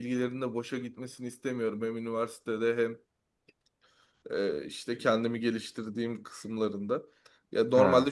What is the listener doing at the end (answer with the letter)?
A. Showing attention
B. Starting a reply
A